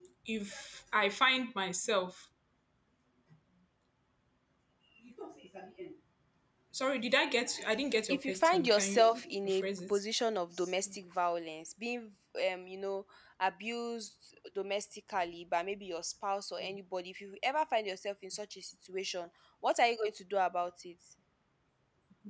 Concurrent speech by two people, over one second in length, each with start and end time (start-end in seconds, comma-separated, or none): 8.1-10.0